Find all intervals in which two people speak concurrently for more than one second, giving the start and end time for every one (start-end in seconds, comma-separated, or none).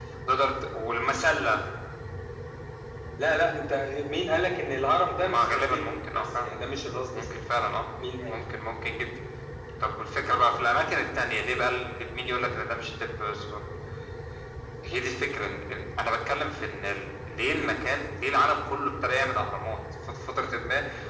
5.2-6.5